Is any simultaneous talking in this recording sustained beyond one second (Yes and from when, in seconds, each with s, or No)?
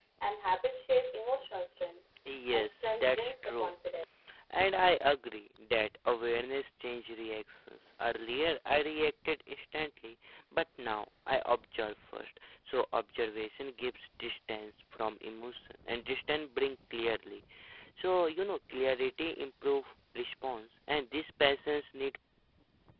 Yes, from 2.5 s